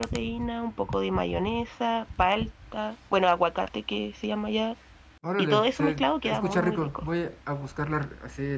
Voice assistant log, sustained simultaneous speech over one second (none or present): present